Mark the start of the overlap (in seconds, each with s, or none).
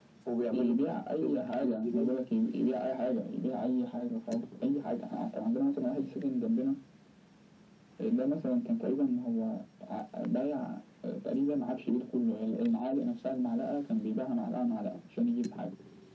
0.5 s